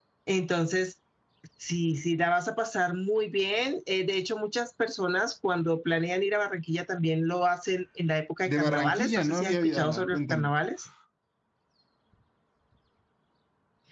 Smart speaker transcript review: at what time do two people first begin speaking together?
8.5 s

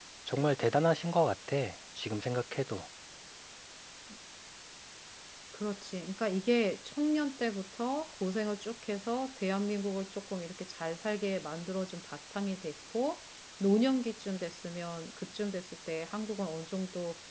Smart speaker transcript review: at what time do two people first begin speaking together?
none

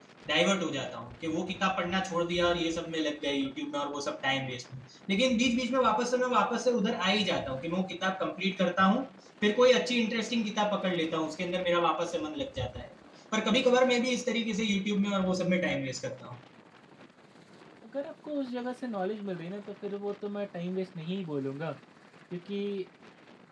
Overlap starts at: none

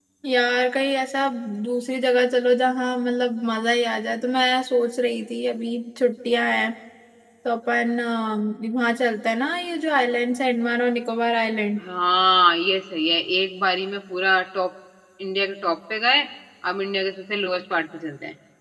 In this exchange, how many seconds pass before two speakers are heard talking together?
none

